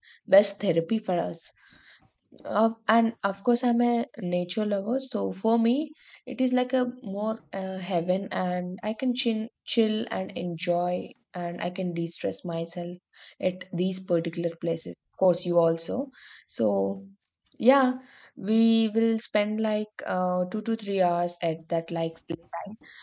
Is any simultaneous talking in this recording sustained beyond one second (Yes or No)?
No